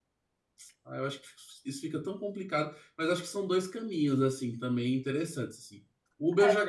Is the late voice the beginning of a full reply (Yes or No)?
No